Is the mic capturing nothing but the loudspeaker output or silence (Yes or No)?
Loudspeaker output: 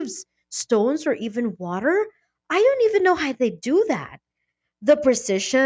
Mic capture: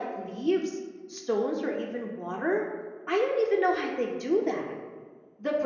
Yes